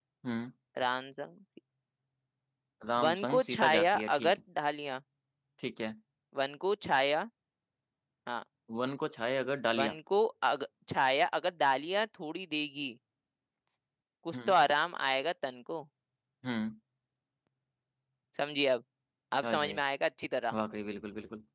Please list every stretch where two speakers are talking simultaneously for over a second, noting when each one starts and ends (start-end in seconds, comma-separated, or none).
3.0-4.4